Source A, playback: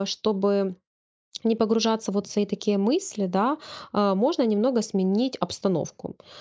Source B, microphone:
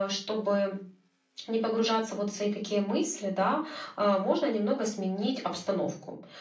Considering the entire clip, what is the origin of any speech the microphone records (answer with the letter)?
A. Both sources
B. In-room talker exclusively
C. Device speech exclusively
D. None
C